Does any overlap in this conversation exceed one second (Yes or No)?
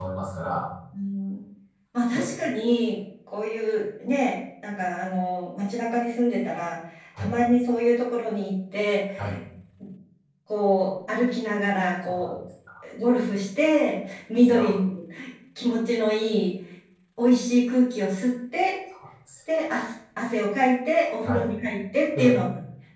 No